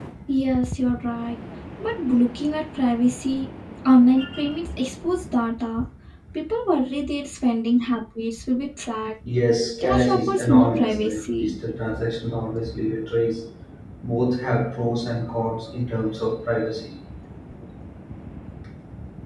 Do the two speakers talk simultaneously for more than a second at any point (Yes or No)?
Yes